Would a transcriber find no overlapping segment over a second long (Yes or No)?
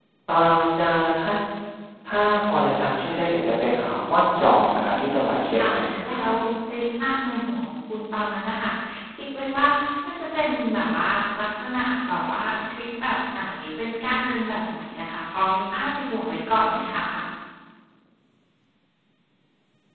No